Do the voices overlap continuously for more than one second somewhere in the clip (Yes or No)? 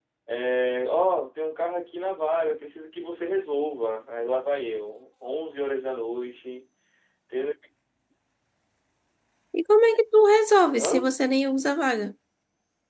No